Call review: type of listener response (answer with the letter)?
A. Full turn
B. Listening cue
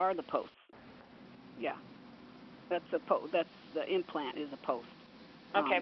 A